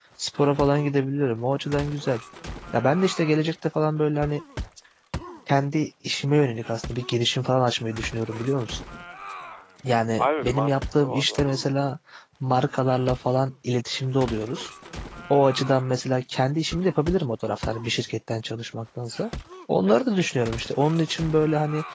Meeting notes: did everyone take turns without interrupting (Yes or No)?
No